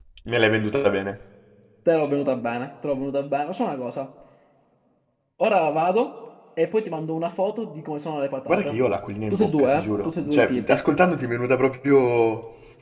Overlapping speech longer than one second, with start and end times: 9.3-10.8

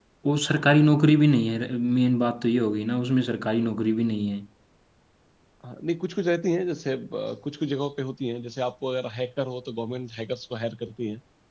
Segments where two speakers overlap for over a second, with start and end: none

